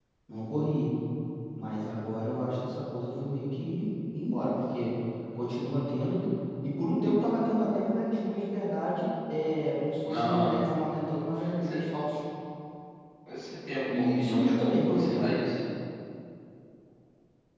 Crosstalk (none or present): present